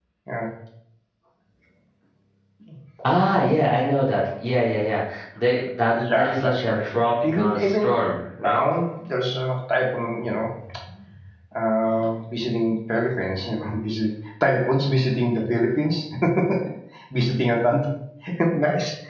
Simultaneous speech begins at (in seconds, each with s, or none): 6.1 s